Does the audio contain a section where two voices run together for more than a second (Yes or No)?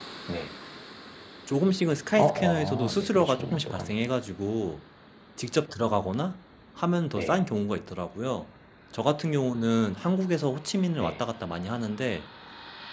Yes